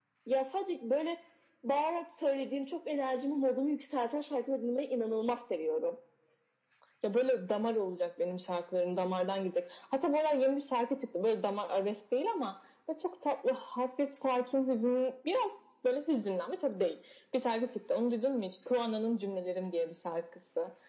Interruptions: none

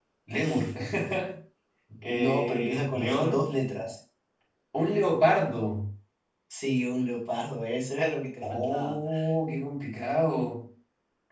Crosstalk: present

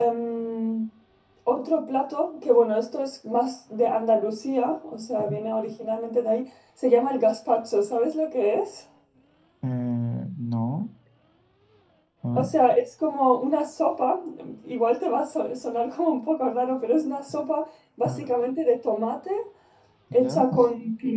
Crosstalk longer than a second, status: none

